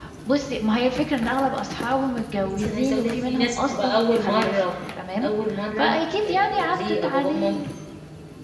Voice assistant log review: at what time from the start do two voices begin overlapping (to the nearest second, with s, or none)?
2 s